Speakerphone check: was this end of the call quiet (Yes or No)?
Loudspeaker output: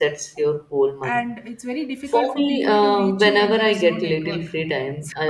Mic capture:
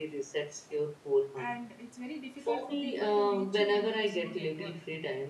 Yes